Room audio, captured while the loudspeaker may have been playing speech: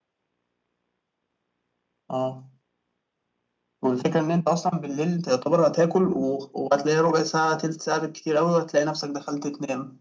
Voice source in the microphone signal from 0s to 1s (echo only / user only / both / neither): neither